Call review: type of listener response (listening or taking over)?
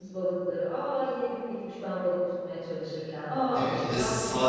taking over